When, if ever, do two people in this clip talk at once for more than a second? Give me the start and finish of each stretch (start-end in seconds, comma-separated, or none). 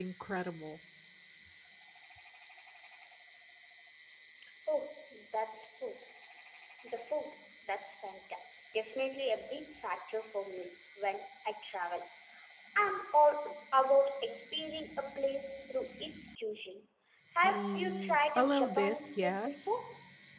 17.4-19.7